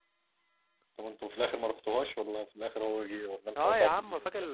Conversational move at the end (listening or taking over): taking over